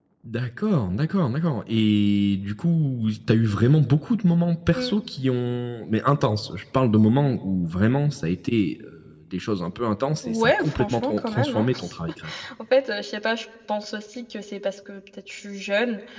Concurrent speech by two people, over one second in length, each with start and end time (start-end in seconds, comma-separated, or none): 10.2-11.7